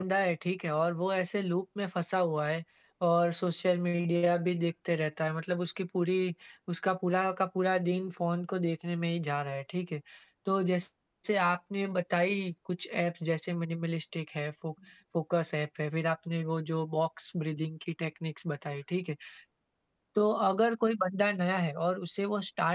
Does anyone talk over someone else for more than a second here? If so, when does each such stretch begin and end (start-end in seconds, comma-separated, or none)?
none